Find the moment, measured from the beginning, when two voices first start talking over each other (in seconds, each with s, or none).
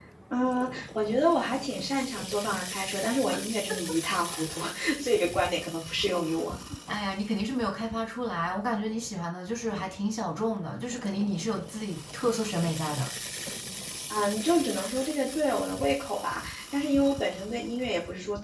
none